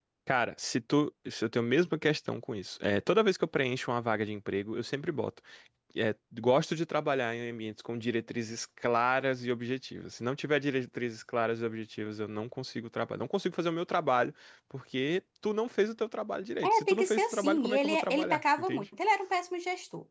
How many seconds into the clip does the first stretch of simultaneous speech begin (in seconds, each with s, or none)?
16.6 s